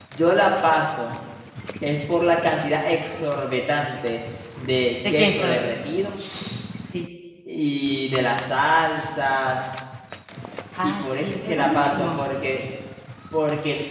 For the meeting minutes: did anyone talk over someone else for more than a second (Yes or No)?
Yes